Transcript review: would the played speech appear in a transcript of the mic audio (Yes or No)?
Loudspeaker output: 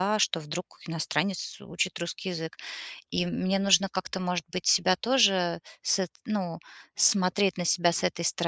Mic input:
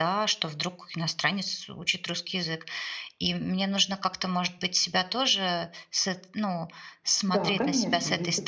Yes